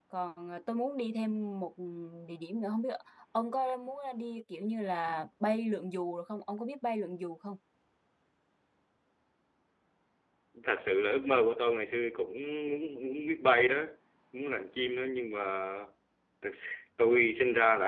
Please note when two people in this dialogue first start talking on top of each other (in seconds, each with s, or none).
none